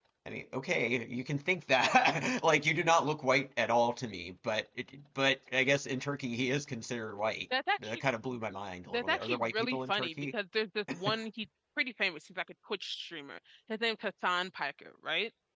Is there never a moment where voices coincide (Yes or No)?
No